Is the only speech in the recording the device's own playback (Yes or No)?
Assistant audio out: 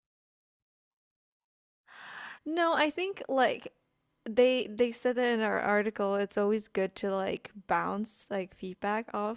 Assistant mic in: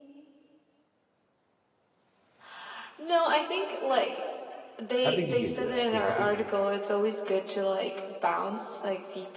No